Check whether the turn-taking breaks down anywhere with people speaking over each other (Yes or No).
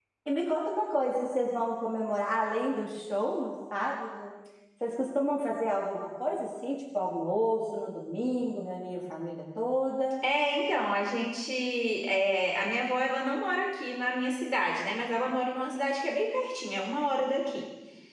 No